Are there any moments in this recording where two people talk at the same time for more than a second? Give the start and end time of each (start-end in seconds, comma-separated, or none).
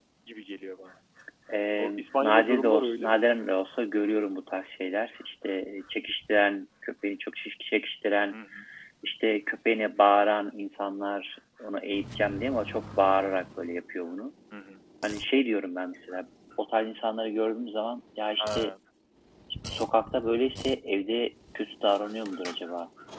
1.8-3.2